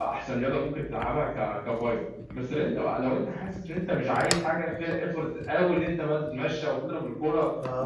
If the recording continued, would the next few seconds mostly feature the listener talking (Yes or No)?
Yes